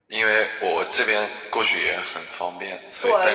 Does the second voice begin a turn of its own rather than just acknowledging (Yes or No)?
Yes